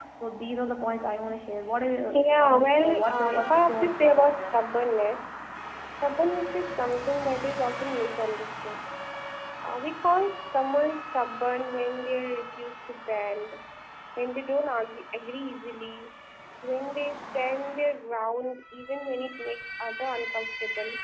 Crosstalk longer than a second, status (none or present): present